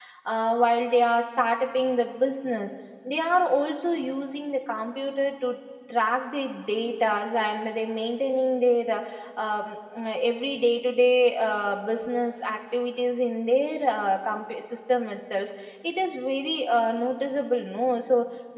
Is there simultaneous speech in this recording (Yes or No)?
No